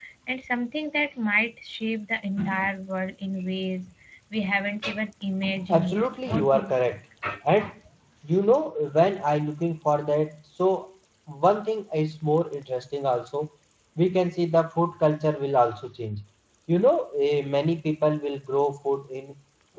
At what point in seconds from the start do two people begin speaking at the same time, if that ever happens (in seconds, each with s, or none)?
5.7 s